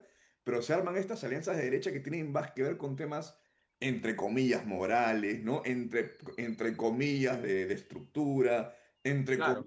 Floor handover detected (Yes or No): No